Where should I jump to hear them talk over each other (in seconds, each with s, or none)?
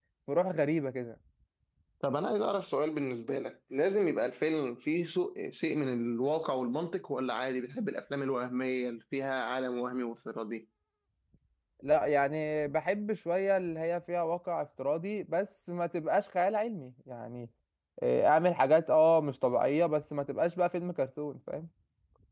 none